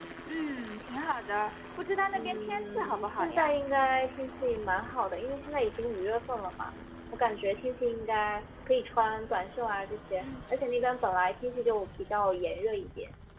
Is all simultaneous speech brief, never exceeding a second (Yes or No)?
No